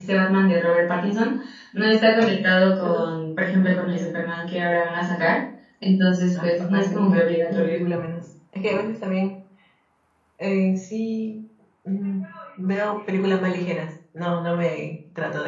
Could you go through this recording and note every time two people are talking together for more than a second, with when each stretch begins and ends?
6.4-7.8

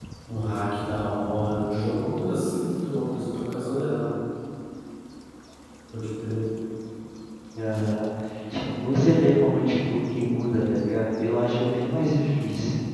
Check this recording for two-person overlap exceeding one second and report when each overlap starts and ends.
none

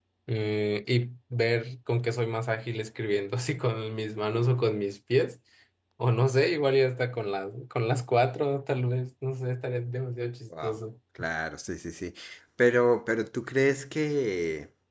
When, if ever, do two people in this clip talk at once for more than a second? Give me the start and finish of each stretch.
none

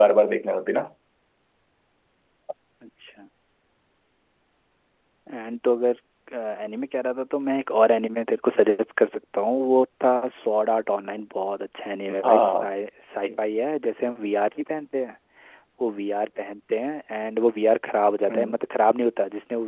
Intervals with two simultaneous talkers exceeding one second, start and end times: none

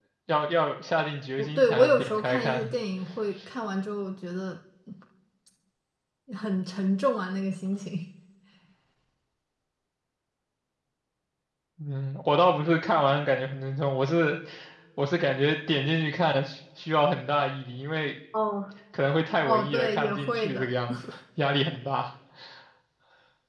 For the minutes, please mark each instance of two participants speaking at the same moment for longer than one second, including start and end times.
1.4-2.7, 19.4-20.7

